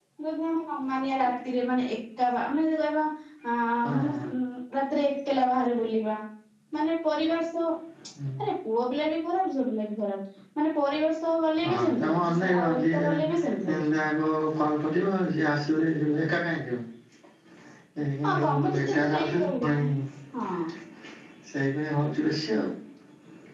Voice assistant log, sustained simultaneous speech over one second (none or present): present